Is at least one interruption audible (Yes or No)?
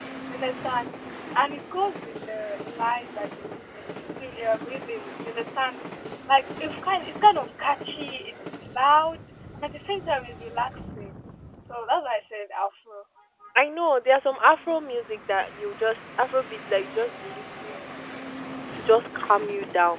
No